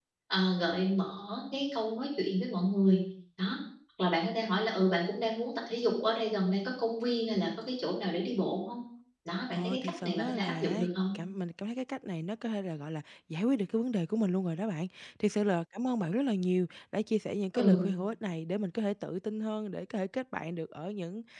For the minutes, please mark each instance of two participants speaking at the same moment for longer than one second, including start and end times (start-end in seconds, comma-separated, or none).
9.5-10.9